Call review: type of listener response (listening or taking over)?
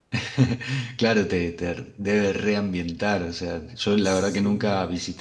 listening